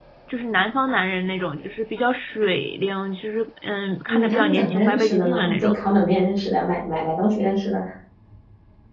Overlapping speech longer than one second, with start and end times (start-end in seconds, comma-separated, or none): 4.1-5.7